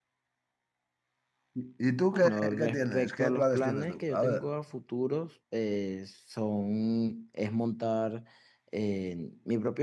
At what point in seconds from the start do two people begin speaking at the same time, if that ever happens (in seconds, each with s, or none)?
2.1 s